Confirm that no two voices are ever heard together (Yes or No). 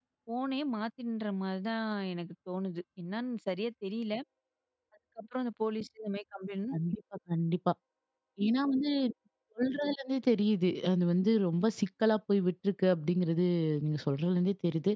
Yes